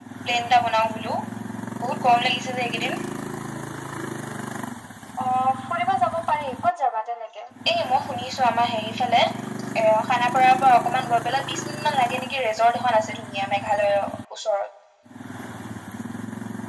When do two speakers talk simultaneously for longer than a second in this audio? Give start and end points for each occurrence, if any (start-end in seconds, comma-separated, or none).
none